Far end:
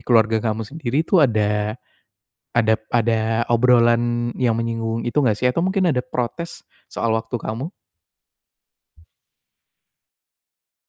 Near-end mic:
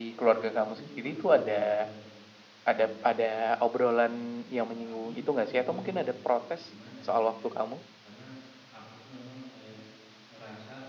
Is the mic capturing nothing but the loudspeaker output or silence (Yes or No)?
No